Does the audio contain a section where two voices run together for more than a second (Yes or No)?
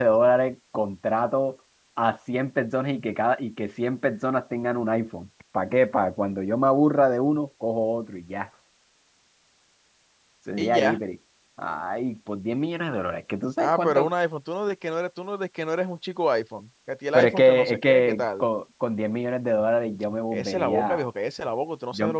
Yes